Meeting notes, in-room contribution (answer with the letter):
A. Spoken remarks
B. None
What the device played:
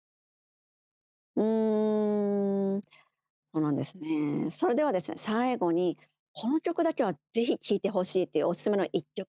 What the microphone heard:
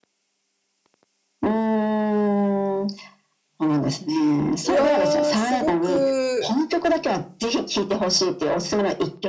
A